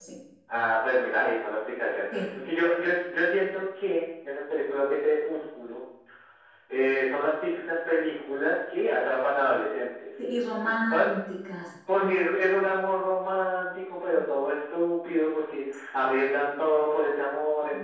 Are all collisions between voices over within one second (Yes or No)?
Yes